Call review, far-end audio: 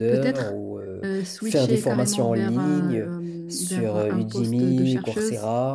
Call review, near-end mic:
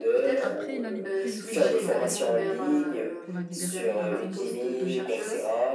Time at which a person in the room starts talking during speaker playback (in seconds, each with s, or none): 0.4 s